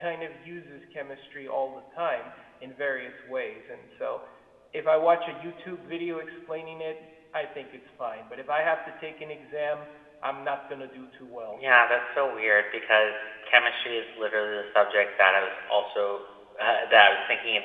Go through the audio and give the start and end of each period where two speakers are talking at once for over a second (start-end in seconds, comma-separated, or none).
none